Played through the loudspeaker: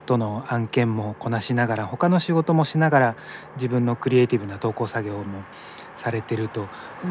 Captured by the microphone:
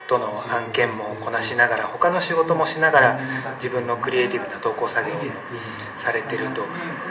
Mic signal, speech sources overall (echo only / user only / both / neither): both